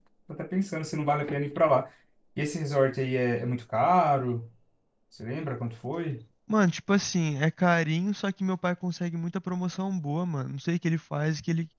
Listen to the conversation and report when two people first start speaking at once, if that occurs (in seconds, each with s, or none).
none